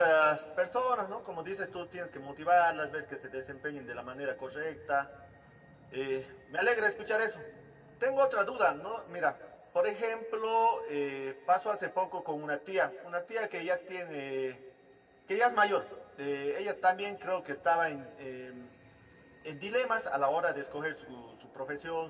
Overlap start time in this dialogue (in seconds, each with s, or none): none